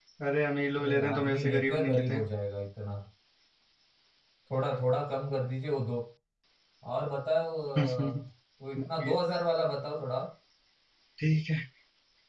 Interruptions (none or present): present